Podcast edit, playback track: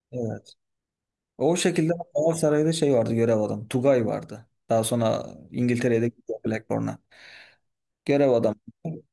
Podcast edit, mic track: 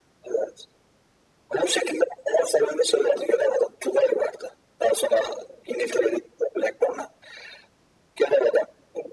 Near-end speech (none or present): none